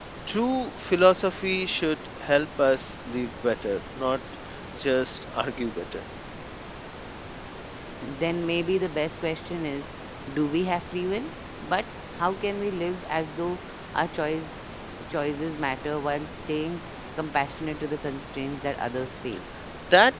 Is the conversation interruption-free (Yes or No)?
Yes